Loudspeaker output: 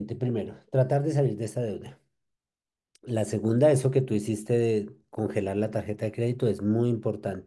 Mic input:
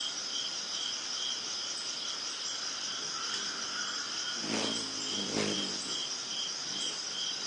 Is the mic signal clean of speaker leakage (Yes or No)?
Yes